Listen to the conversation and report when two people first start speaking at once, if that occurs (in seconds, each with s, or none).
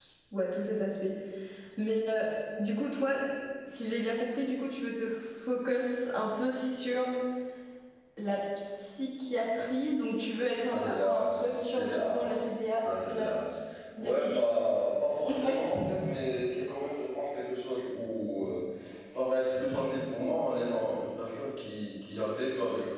10.7 s